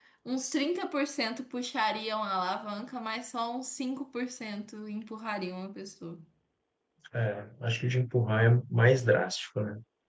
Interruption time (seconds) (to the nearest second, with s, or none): none